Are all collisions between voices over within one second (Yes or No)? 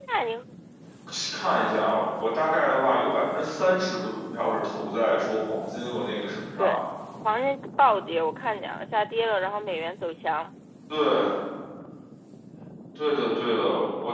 Yes